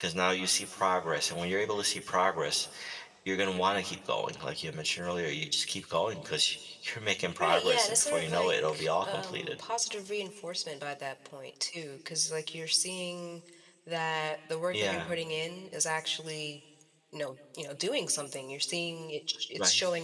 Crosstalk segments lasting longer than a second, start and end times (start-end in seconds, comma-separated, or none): 7.4-9.5